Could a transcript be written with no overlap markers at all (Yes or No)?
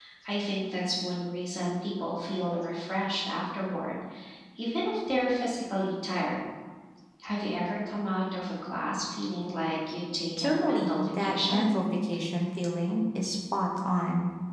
No